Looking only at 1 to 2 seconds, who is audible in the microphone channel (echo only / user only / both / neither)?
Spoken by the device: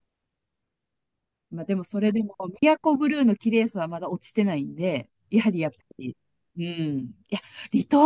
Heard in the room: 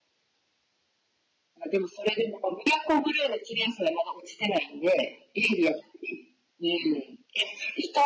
echo only